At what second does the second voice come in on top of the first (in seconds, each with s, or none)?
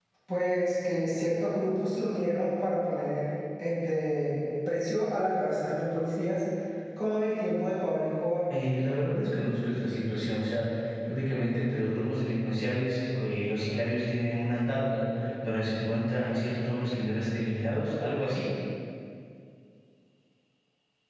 none